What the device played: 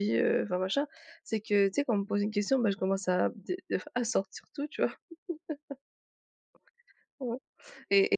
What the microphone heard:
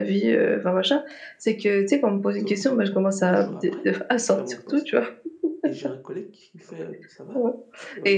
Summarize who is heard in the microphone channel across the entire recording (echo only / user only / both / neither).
both